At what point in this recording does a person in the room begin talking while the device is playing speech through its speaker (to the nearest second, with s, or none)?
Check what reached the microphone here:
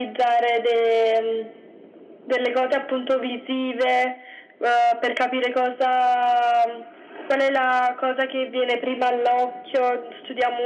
none